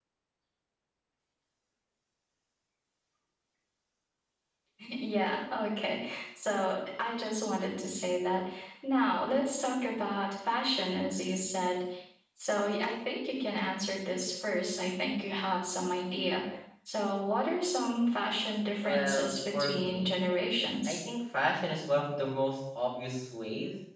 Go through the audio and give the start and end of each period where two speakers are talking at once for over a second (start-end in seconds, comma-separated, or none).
18.8-20.2